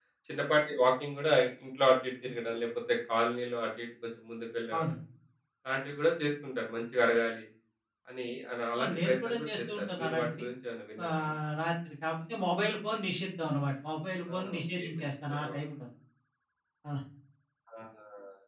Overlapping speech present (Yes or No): Yes